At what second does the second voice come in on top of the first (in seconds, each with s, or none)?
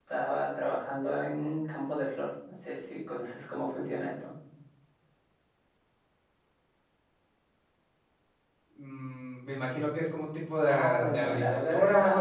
10.7 s